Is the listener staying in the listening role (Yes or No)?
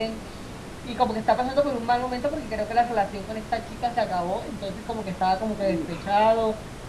Yes